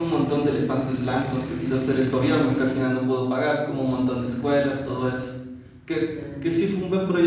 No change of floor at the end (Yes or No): Yes